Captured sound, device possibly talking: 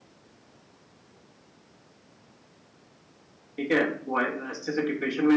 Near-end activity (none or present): present